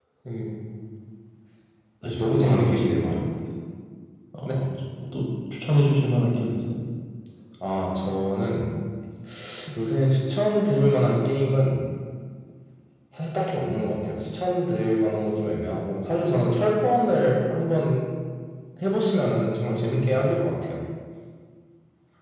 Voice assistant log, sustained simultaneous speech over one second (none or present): present